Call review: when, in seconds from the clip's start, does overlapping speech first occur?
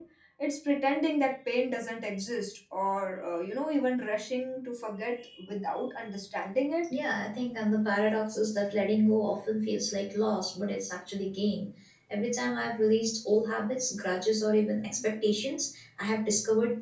none

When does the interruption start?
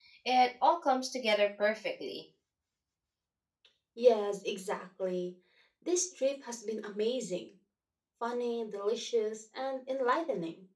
none

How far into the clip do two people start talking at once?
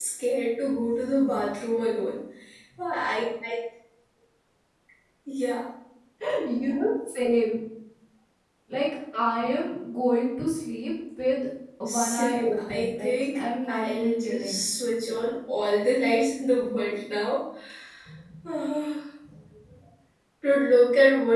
11.8 s

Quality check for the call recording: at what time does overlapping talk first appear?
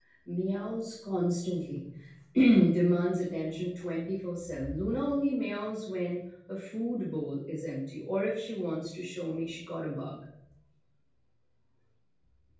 none

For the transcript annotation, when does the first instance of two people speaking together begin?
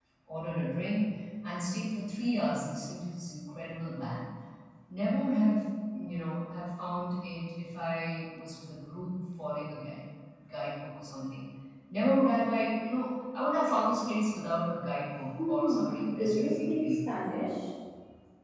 15.4 s

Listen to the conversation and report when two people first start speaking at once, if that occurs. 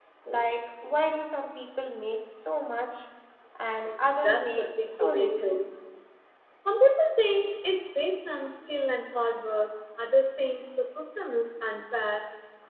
4.2 s

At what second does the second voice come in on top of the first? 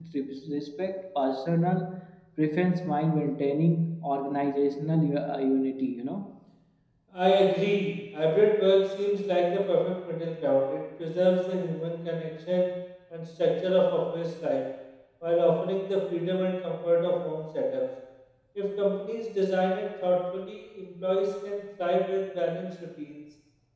none

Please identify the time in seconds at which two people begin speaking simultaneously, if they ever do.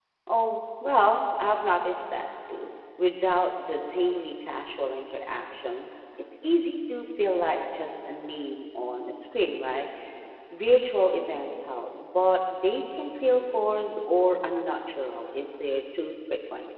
none

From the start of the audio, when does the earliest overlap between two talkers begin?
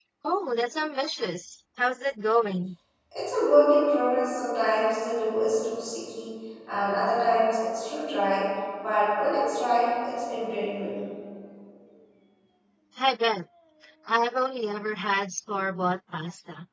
none

